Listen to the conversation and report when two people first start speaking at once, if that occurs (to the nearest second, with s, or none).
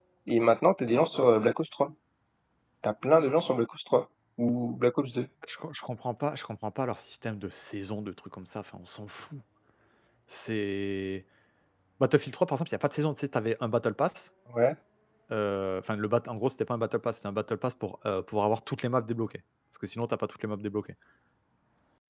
none